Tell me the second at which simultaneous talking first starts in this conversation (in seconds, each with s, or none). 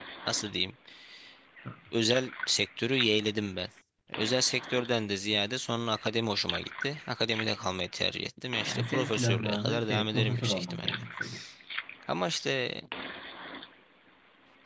8.6 s